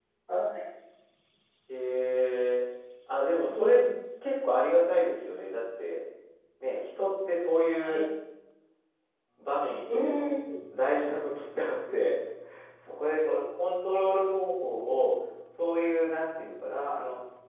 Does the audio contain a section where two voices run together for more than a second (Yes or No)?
No